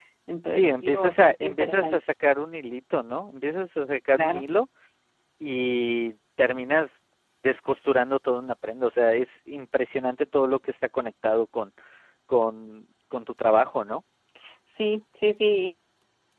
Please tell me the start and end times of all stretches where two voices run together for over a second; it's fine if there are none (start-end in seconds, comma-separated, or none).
0.5-2.0